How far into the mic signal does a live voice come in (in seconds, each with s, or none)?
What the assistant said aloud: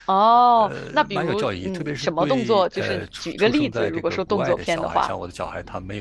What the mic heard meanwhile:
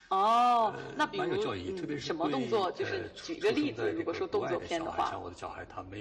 none